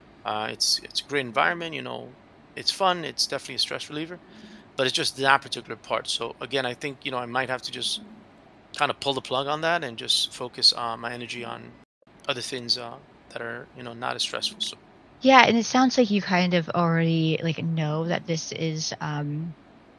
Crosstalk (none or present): none